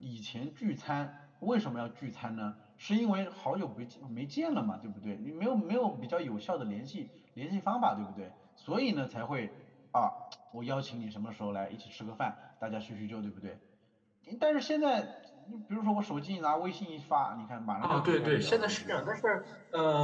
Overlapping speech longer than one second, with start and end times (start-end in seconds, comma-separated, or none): 17.8-19.0